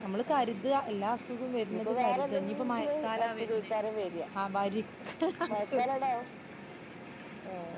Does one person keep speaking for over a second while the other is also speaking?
Yes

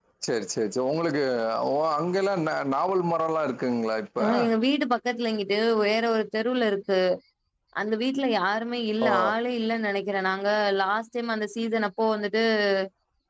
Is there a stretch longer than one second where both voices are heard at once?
No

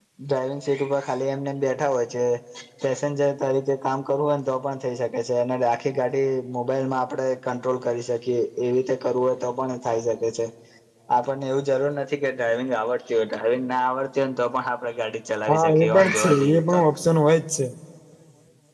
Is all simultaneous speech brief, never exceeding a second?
No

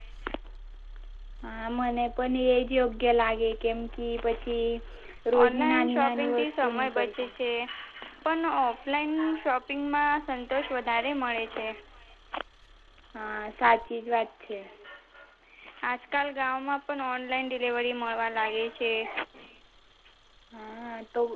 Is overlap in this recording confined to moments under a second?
No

